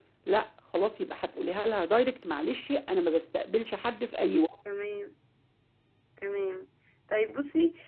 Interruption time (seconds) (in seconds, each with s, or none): none